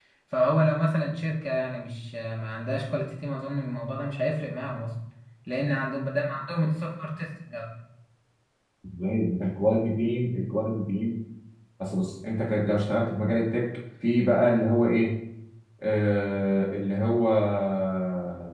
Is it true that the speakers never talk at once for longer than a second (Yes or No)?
Yes